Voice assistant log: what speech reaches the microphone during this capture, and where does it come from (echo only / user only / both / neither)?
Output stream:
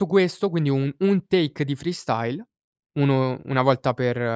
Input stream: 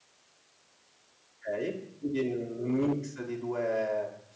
user only